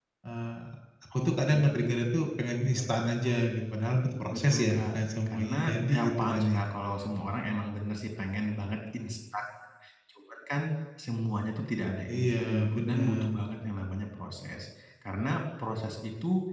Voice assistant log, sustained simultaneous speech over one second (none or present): present